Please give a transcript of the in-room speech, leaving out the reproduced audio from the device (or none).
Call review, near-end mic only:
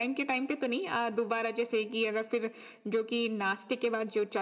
none